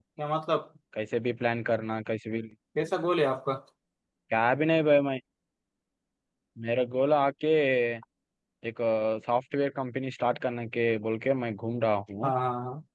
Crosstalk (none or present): none